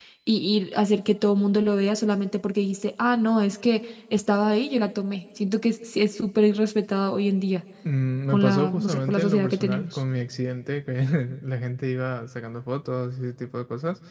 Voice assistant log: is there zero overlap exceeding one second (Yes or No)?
No